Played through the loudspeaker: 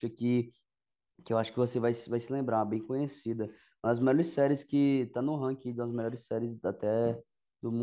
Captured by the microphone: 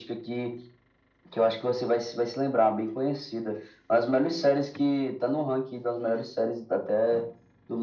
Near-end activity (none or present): none